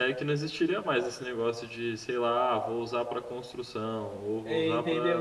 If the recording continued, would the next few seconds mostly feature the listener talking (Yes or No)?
Yes